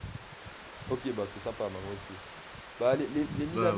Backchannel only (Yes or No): Yes